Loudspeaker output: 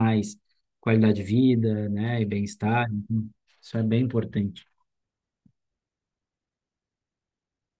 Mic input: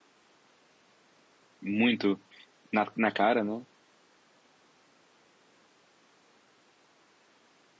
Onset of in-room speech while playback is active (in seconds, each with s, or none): 1.6 s